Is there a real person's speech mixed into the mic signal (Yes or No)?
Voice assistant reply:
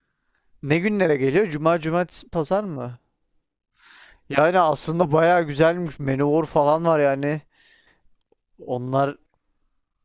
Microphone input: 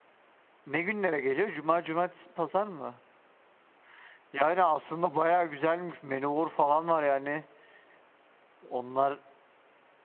No